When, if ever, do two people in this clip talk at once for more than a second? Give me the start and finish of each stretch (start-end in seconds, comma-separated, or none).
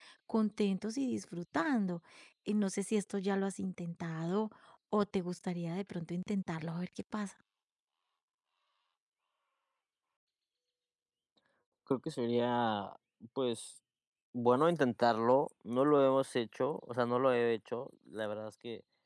none